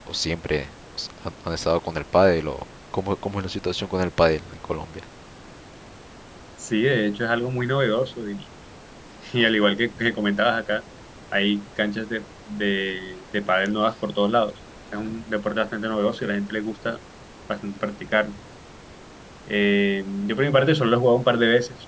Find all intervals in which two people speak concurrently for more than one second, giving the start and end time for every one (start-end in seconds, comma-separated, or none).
none